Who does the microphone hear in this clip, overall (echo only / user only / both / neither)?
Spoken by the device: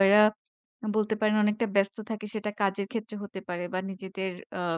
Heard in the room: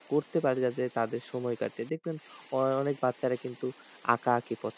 user only